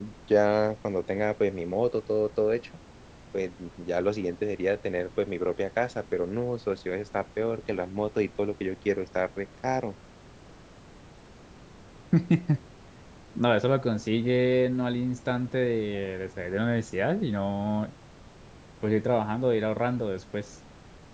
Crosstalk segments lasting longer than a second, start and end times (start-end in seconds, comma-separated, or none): none